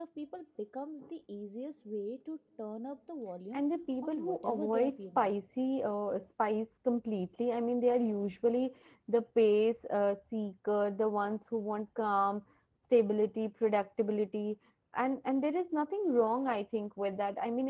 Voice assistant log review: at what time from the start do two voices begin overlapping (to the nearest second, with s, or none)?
4 s